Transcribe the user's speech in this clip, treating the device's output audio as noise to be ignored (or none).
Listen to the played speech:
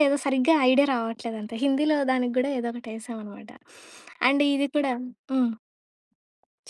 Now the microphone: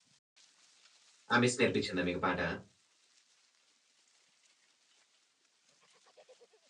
ఆ మిస్ నేర్పించిందా మీకు పాట?